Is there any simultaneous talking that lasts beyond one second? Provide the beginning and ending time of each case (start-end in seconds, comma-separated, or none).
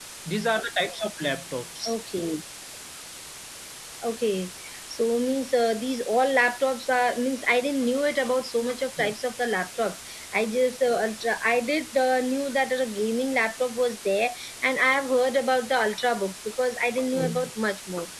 none